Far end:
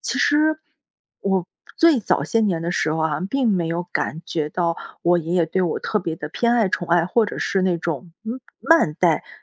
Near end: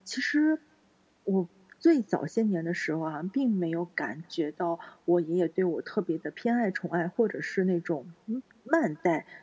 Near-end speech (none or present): none